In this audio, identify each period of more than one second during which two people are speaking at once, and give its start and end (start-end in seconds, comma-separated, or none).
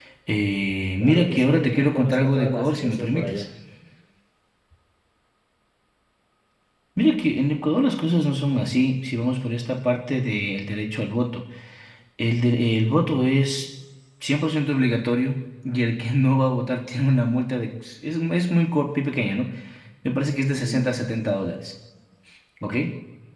1.0-3.4